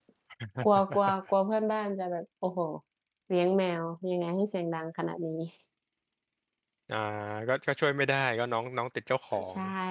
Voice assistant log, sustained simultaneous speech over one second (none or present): none